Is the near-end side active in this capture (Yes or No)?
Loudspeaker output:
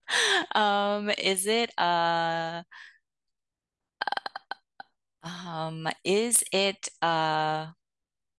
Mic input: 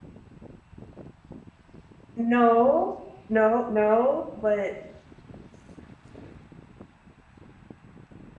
Yes